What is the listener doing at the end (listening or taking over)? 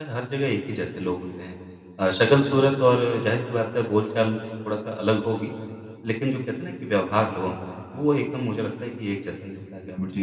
taking over